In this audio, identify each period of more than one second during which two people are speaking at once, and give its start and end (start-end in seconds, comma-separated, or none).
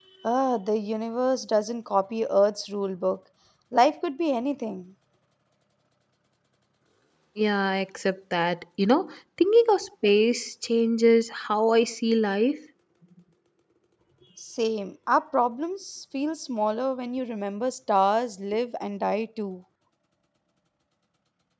none